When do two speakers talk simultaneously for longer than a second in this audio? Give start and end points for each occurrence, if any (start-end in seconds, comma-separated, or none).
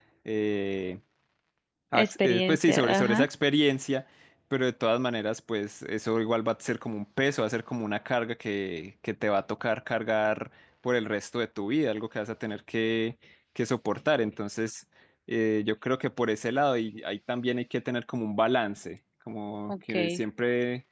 1.9-3.2